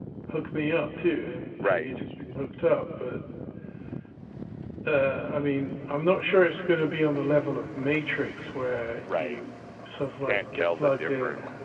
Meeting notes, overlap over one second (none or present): present